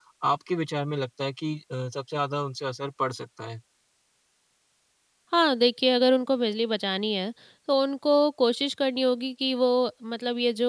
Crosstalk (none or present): none